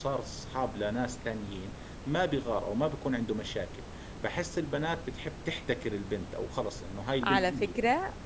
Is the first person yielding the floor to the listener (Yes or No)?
Yes